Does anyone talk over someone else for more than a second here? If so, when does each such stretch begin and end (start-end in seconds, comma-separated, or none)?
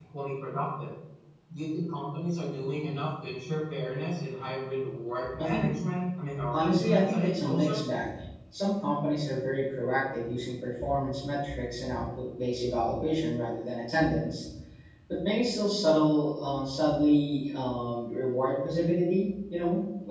6.5-7.8